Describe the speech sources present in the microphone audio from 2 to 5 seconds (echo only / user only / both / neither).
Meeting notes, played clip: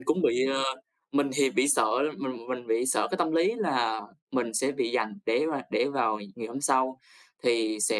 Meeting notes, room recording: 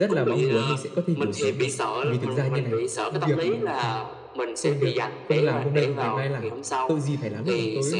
both